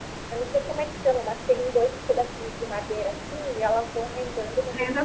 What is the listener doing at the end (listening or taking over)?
listening